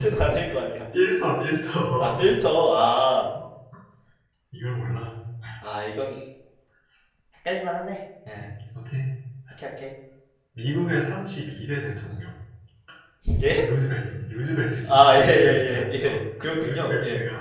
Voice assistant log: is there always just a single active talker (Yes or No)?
No